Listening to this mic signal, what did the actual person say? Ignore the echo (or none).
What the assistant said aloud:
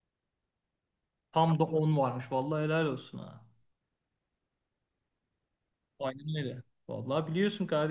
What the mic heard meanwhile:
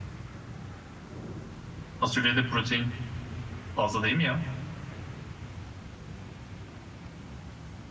Fasulyede protein fazla değil mi ya?